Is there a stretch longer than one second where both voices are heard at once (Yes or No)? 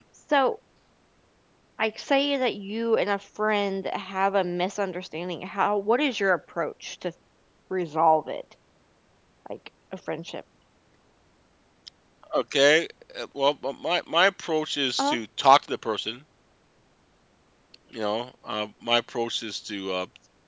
No